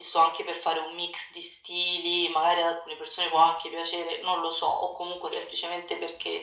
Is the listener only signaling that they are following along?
Yes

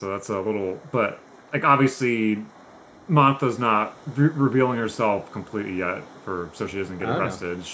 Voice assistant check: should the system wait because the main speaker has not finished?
Yes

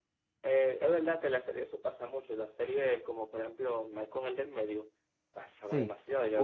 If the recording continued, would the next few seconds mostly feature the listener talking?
Yes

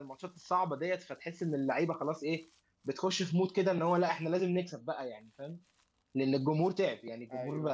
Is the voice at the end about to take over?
No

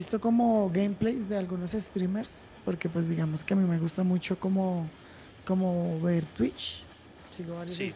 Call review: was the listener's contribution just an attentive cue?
Yes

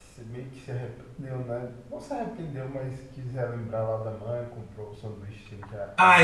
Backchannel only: No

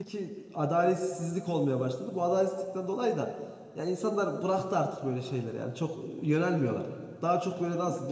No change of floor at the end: Yes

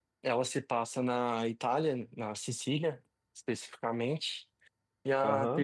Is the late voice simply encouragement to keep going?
No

